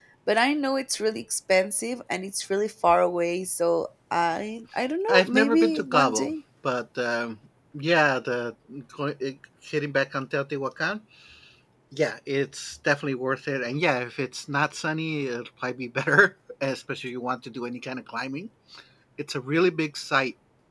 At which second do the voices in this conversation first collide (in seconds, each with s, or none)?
5.1 s